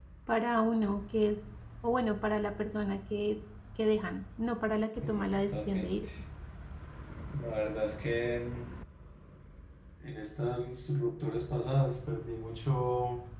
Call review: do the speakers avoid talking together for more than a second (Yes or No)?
No